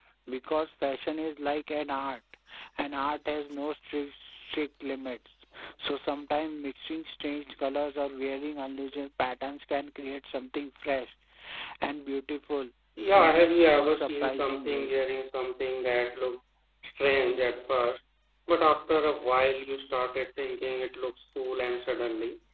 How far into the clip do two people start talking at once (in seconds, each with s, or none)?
13.1 s